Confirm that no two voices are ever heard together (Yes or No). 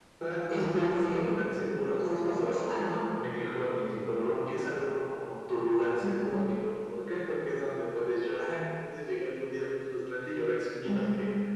No